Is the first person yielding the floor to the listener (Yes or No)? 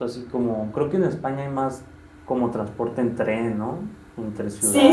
Yes